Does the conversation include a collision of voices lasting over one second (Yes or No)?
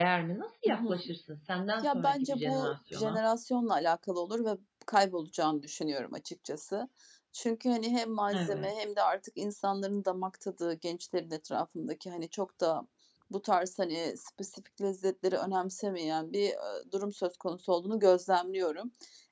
Yes